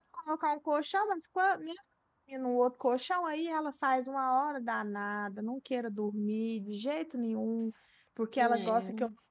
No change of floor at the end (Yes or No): Yes